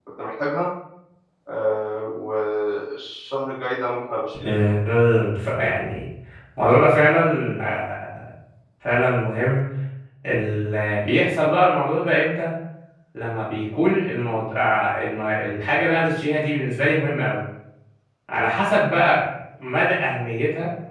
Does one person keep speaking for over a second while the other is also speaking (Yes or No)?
No